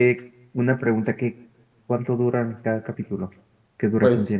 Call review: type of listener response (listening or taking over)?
taking over